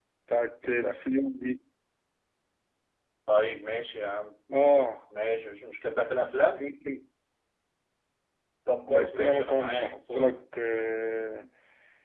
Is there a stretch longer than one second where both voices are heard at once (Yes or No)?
Yes